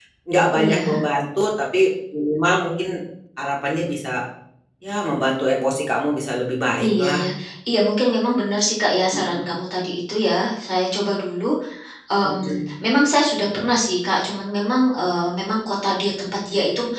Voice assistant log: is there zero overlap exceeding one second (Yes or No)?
Yes